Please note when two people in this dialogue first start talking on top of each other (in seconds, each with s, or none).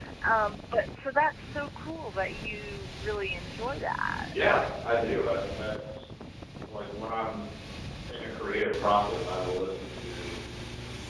none